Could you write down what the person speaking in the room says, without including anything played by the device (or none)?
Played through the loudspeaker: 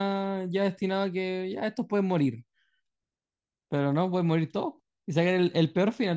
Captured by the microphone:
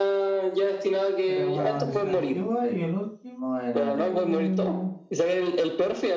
era como una maldición antigua. Y el último era de...